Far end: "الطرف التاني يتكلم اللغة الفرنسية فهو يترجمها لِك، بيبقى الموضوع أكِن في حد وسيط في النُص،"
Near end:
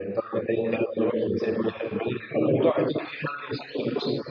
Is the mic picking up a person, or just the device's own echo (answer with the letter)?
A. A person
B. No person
B